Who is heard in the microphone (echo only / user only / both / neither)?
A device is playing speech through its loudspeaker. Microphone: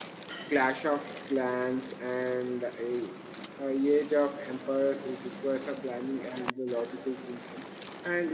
user only